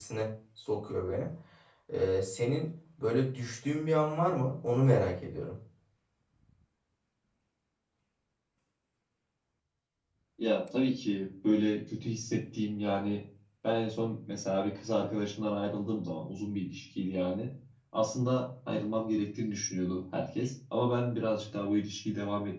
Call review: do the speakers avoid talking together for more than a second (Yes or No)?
Yes